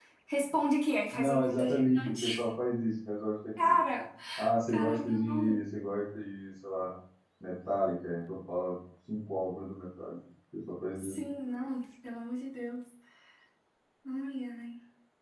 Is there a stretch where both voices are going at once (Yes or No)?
Yes